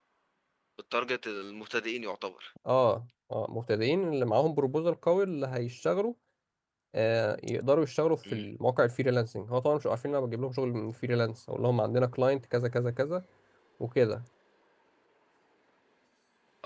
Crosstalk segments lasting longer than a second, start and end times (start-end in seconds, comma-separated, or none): none